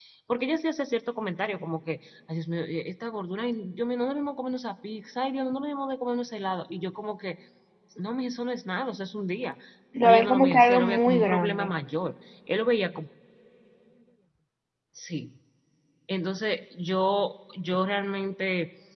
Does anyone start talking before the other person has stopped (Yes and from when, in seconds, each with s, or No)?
Yes, from 10.0 s